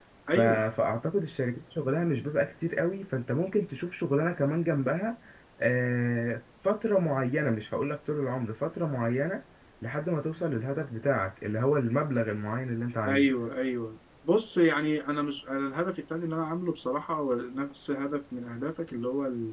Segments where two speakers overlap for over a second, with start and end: none

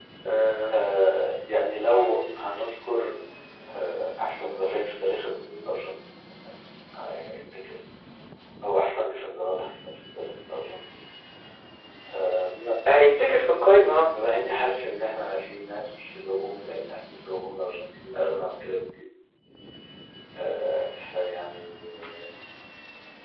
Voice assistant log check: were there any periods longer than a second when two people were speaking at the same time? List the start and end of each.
none

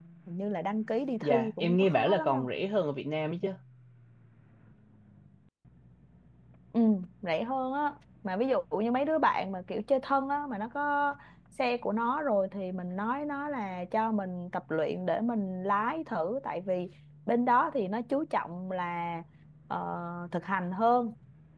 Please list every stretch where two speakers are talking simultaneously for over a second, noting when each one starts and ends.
1.2-2.5

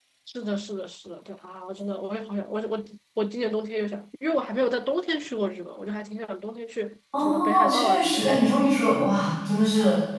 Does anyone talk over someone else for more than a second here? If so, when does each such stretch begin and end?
7.2-8.5

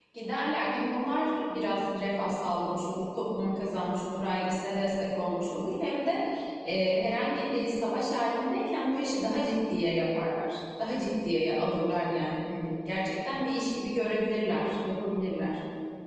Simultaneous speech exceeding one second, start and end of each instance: none

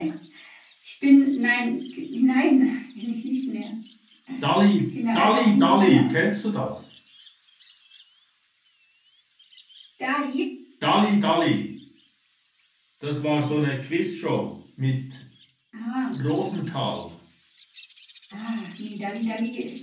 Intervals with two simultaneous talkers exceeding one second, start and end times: 4.9-6.1

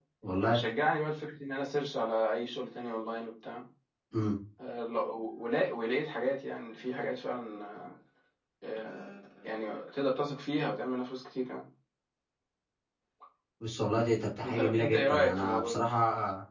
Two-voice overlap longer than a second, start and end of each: 14.4-15.8

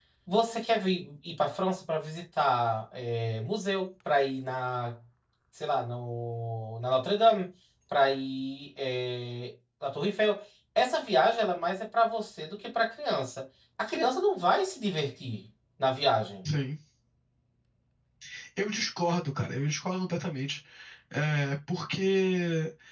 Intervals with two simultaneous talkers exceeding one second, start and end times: none

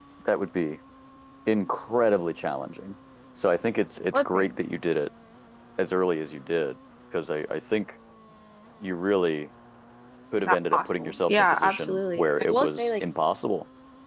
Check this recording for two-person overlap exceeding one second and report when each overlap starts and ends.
10.4-12.9

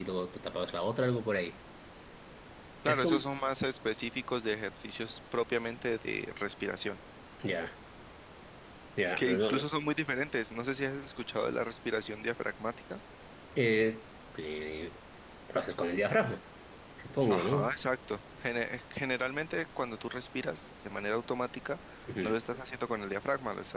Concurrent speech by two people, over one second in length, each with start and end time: none

